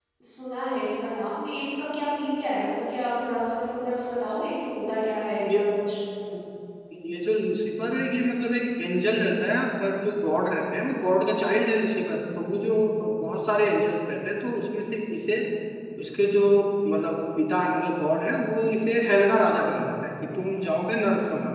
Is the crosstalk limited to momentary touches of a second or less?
Yes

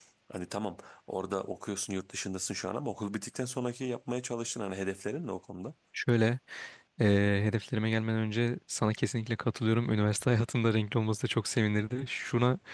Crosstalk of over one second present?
No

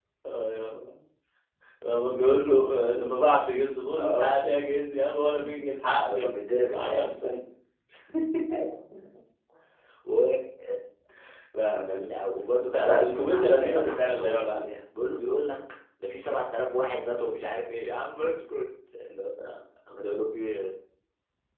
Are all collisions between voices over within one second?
No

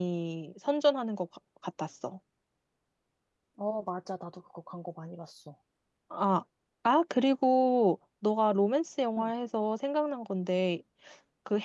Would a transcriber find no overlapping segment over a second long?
Yes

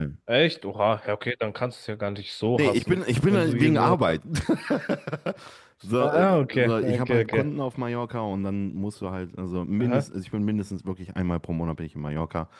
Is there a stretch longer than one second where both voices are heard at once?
Yes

